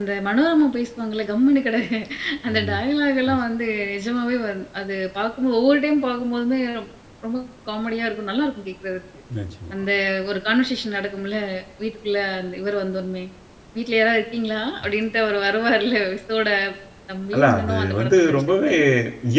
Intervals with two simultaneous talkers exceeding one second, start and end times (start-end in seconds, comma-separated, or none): 17.3-18.7